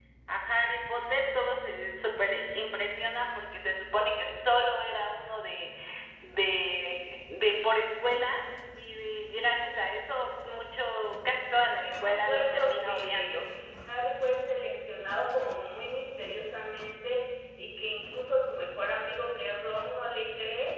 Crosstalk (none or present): present